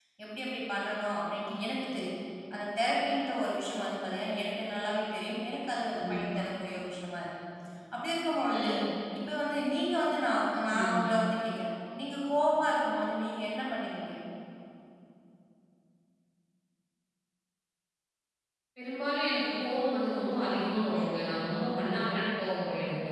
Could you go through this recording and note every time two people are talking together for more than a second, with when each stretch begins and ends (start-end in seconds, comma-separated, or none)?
none